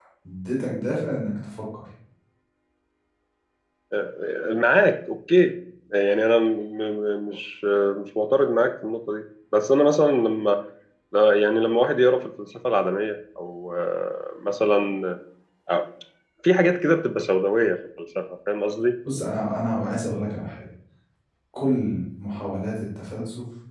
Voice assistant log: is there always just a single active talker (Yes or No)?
Yes